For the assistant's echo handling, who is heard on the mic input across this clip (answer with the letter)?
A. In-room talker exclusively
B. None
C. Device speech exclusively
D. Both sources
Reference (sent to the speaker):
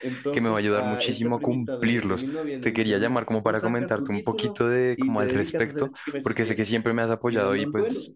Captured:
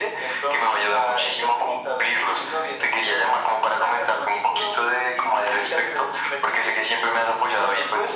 C